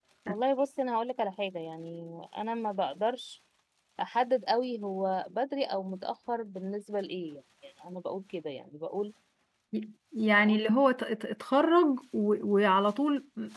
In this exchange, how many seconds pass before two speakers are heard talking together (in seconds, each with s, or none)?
none